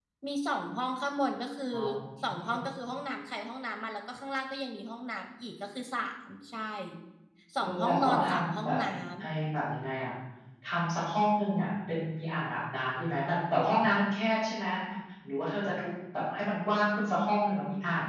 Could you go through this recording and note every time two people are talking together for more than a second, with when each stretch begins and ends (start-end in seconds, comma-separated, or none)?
7.6-8.8